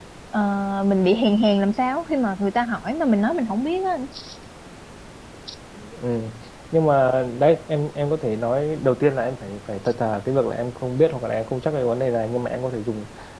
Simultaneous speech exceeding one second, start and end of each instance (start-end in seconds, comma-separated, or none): none